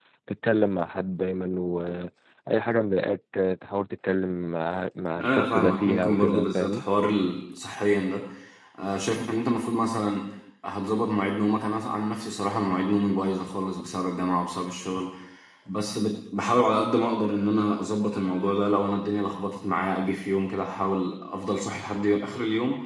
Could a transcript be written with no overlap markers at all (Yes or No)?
No